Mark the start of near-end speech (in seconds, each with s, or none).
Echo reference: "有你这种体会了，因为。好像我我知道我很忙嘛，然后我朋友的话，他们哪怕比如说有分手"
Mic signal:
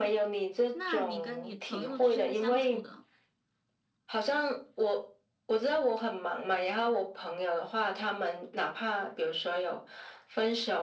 0.7 s